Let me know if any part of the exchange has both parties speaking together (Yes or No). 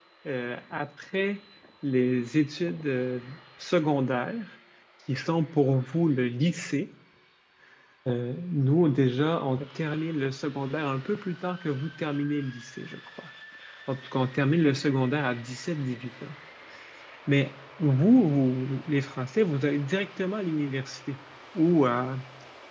No